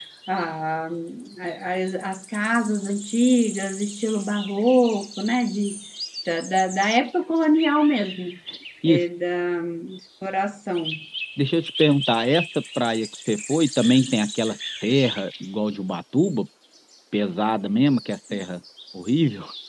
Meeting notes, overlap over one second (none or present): none